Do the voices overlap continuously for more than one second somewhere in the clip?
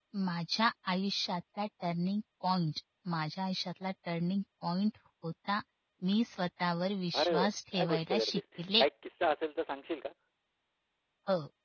Yes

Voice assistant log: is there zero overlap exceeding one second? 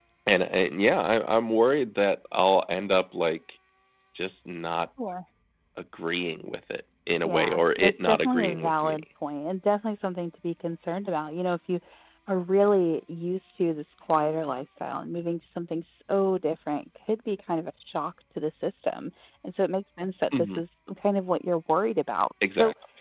No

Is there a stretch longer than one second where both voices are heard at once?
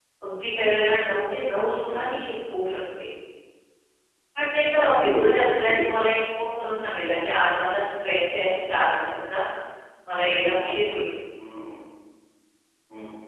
Yes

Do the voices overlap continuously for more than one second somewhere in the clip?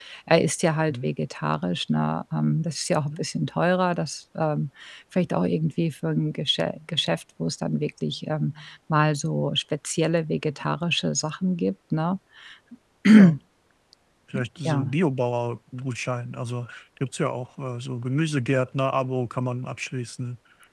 No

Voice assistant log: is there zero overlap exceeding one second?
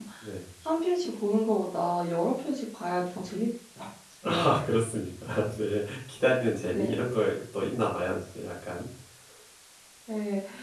Yes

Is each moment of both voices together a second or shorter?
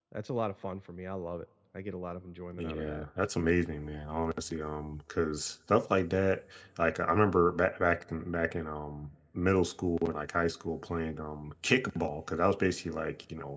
Yes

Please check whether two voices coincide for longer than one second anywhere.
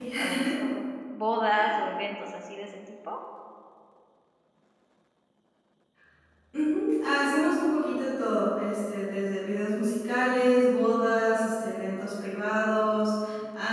No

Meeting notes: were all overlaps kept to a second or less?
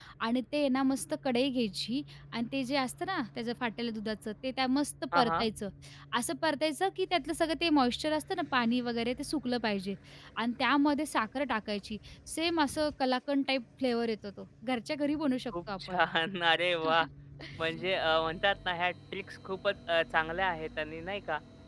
Yes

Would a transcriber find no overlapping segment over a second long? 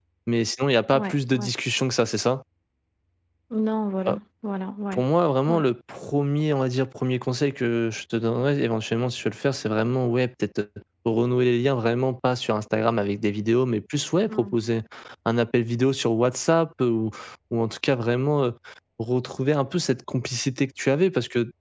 Yes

